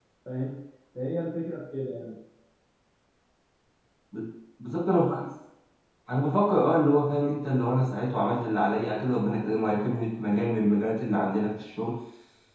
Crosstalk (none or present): none